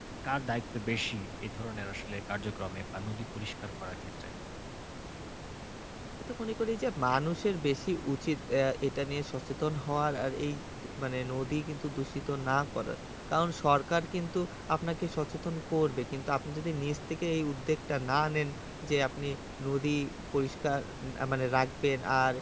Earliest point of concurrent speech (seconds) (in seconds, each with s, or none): none